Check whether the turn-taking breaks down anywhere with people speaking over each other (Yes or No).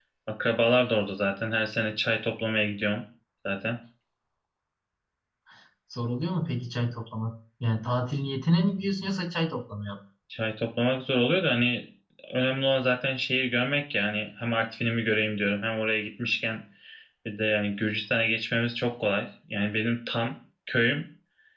No